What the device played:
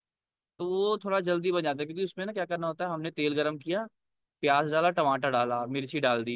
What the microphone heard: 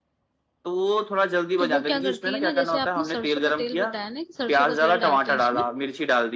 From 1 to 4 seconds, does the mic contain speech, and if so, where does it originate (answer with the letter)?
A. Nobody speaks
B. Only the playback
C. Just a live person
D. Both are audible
D